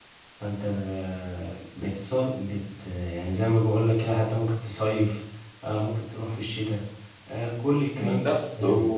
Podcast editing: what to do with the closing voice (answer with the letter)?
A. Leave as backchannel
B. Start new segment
B